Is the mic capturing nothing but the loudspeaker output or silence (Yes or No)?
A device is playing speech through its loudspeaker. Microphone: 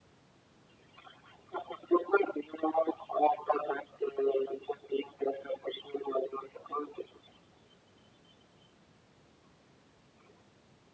Yes